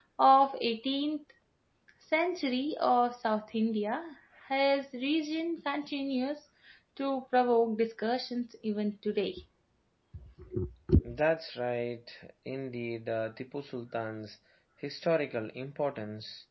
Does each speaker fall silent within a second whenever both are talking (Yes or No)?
Yes